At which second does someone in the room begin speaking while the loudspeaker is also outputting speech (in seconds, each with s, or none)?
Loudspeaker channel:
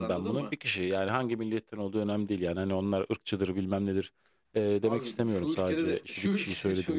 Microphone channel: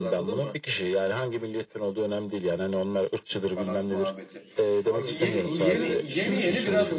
3.5 s